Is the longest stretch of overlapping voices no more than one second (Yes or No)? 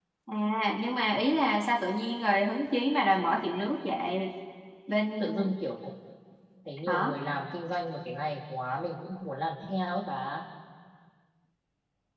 Yes